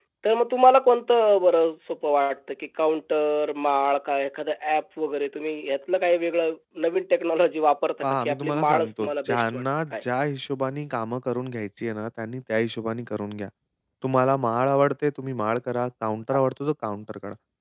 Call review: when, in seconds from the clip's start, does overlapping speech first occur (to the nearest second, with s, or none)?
8 s